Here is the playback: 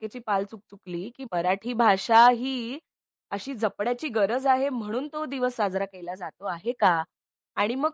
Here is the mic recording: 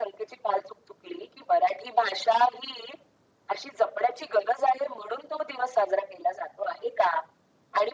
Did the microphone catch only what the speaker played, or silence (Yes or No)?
Yes